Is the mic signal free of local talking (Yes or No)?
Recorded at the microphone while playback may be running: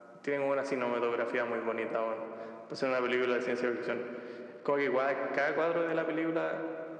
Yes